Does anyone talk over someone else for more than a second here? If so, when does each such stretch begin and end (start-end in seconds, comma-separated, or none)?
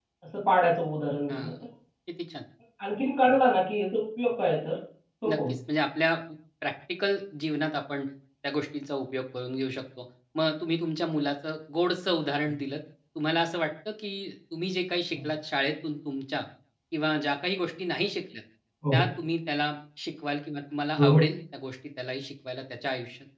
none